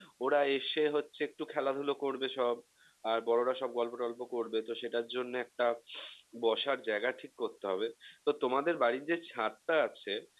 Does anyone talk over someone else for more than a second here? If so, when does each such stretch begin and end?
none

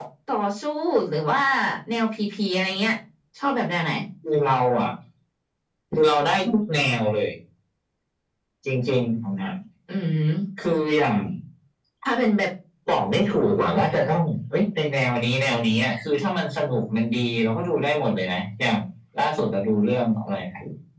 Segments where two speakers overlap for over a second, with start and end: none

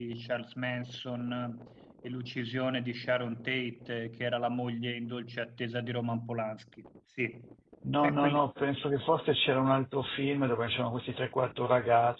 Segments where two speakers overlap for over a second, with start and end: none

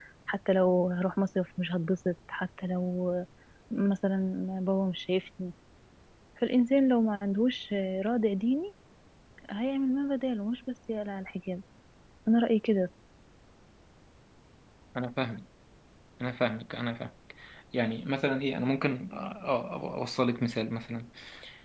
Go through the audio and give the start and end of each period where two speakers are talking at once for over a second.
none

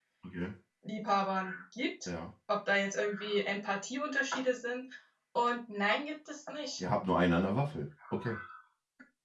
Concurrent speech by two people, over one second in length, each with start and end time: none

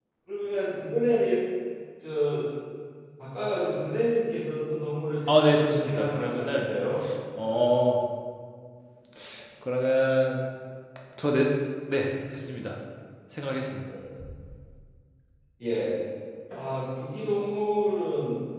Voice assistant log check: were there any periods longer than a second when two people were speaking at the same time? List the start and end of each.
5.3-6.7

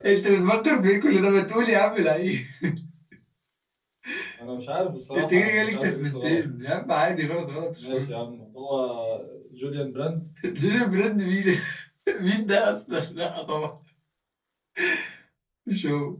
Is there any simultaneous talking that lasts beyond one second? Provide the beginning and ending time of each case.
5.1-6.4

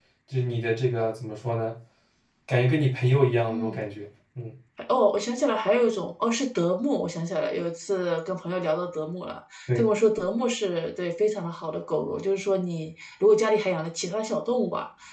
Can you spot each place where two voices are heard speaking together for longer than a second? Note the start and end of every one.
none

